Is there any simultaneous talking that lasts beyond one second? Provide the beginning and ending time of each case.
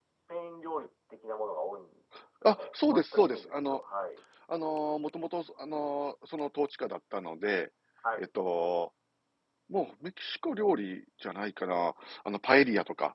2.5-3.8

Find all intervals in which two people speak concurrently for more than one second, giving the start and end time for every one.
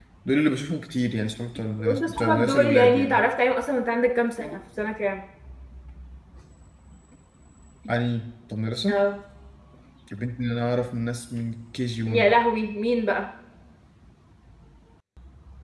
1.8-3.2

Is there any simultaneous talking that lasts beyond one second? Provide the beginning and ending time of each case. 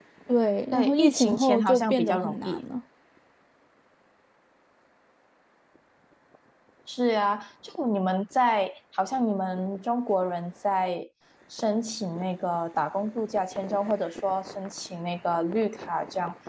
0.7-2.6

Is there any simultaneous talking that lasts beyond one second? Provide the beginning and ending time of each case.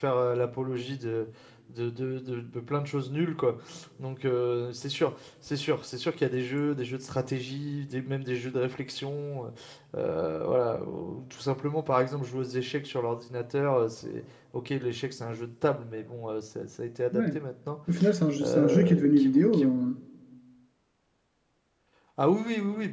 18.4-19.7

